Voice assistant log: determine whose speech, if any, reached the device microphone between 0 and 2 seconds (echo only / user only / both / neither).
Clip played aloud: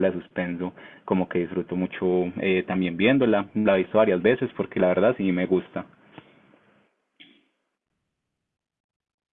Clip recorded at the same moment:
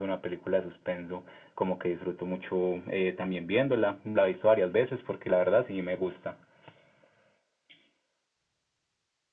echo only